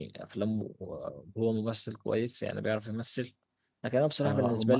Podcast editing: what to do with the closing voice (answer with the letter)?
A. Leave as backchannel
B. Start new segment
A